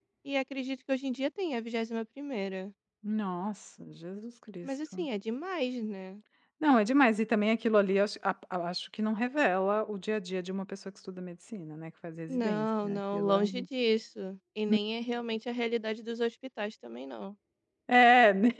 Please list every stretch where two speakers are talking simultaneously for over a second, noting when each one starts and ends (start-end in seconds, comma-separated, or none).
12.3-13.6